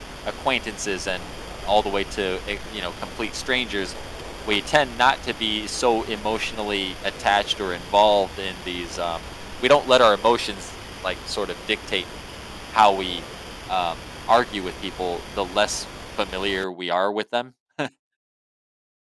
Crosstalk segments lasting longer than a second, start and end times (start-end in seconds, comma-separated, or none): none